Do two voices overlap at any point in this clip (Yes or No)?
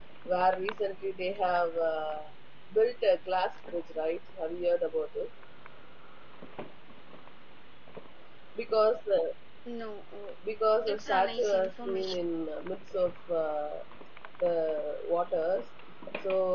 Yes